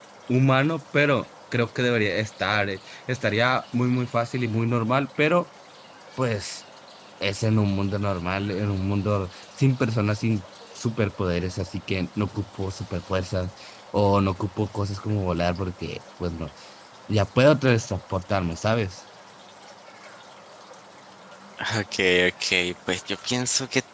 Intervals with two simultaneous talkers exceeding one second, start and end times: none

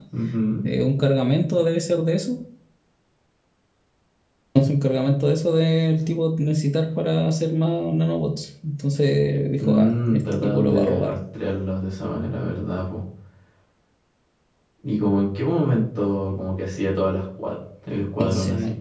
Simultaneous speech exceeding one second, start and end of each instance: 9.6-11.1

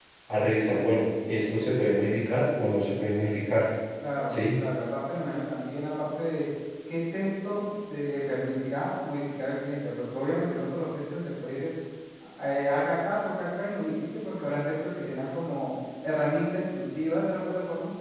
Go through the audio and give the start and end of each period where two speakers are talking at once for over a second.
none

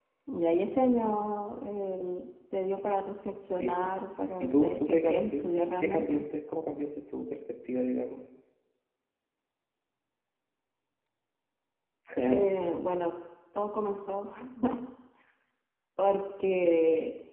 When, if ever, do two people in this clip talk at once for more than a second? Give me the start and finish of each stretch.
4.4-6.2

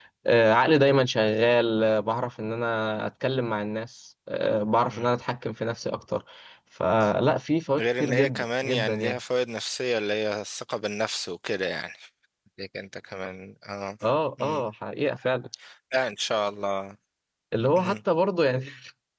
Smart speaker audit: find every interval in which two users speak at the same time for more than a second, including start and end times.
7.8-9.2

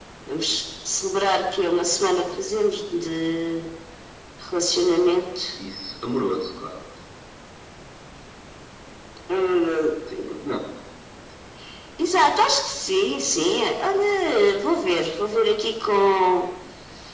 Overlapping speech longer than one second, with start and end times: none

